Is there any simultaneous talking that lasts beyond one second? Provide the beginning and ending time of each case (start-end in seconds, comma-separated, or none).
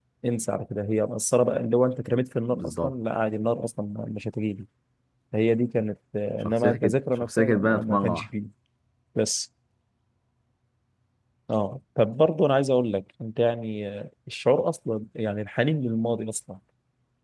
6.4-8.2